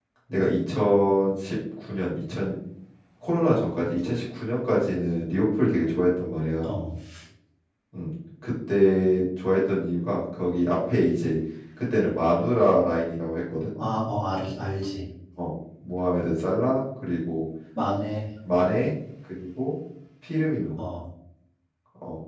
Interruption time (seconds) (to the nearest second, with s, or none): none